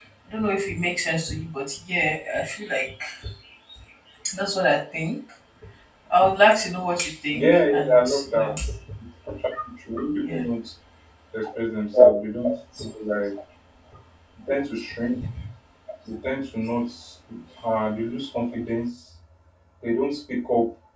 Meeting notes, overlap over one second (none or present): present